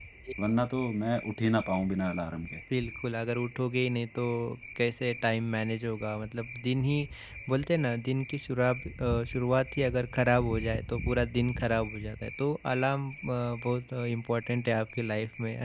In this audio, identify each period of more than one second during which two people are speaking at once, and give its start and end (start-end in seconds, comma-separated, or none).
none